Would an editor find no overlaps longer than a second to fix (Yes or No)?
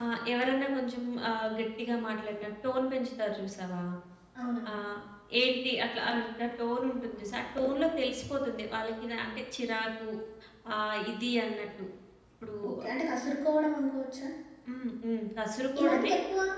Yes